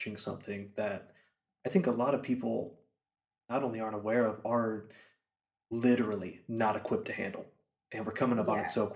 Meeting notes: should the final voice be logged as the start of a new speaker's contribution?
No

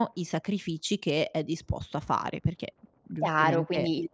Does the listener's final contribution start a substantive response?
Yes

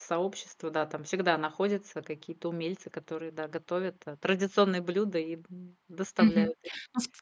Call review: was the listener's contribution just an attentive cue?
No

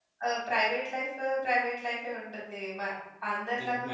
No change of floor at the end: Yes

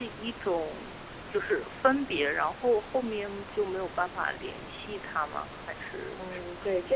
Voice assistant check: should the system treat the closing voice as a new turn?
Yes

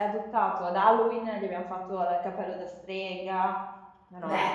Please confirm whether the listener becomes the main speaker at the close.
Yes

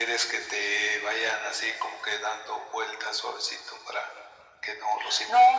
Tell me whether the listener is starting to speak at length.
Yes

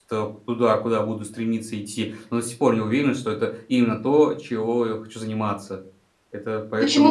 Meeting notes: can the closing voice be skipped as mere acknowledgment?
No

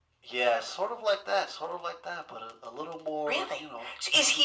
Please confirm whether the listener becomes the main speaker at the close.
Yes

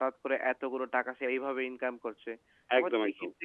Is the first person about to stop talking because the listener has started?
No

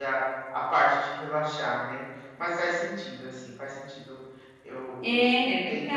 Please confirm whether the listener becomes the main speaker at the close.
Yes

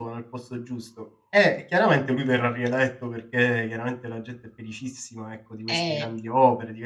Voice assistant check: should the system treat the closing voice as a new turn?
No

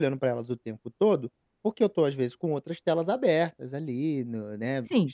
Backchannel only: No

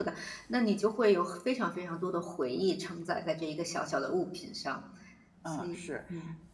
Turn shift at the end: Yes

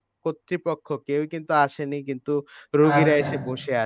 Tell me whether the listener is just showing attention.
Yes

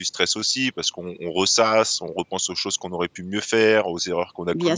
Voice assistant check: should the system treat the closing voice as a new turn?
No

